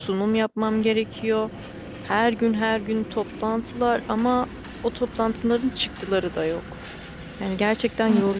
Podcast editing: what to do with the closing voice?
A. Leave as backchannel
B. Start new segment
B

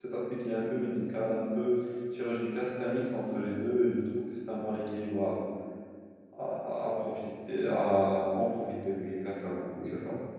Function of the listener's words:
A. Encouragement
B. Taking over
B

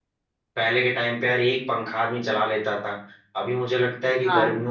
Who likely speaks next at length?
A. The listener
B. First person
B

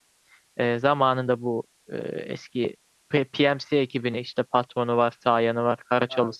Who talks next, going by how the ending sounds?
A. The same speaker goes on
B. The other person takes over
B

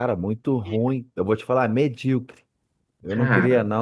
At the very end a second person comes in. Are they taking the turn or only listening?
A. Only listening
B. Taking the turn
A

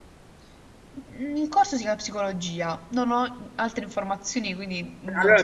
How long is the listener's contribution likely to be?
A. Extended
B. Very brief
A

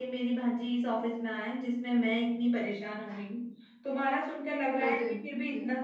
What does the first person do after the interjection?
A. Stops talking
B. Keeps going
B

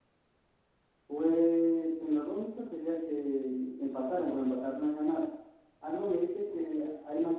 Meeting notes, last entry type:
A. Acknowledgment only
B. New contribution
A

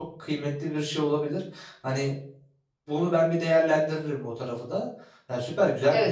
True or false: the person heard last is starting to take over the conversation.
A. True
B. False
A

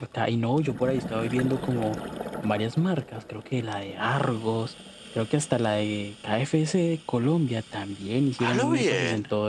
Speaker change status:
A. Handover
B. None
B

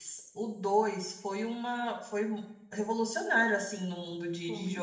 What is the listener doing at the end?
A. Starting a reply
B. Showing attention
A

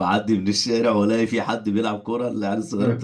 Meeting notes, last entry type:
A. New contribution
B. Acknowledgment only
B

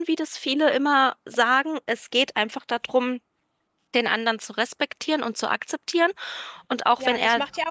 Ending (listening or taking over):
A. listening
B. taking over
B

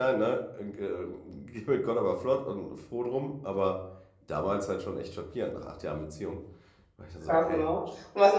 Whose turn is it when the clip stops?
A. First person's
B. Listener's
B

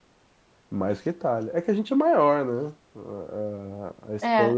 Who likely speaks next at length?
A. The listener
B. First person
B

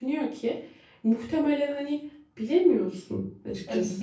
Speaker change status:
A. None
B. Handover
B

